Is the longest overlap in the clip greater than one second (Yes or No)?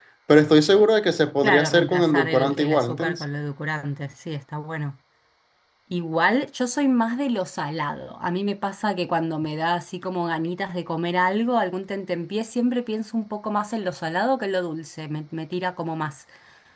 Yes